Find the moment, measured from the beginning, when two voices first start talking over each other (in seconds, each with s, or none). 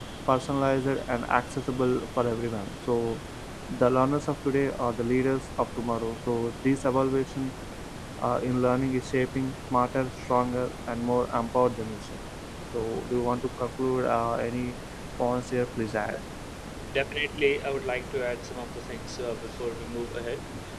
none